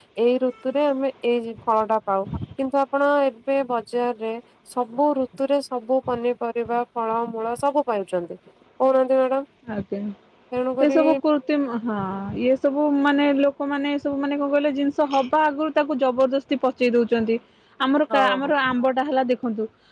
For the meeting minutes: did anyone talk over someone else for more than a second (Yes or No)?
No